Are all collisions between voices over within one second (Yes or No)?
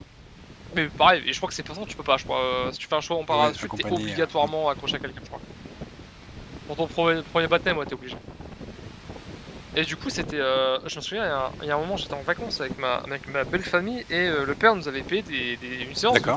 No